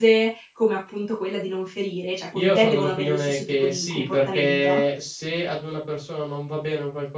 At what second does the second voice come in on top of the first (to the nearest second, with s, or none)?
2 s